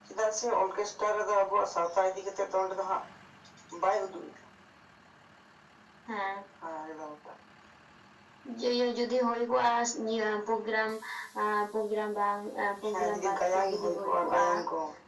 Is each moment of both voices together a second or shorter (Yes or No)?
No